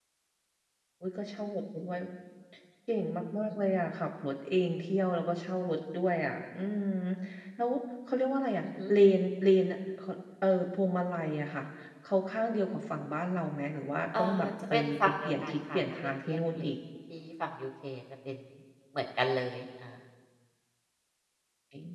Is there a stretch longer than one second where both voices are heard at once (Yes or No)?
Yes